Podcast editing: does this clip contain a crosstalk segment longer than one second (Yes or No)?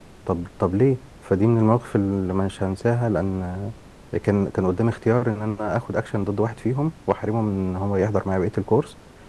No